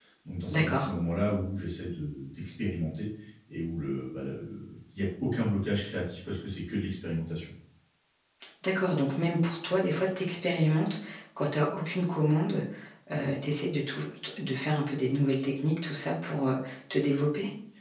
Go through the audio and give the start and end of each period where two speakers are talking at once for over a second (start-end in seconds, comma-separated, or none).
none